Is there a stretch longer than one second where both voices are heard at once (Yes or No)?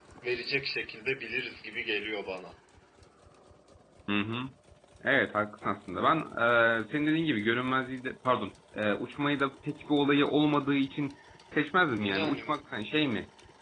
No